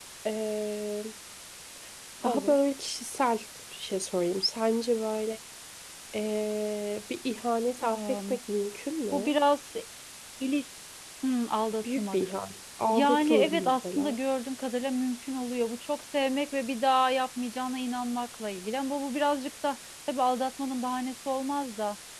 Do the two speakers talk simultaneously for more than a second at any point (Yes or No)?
Yes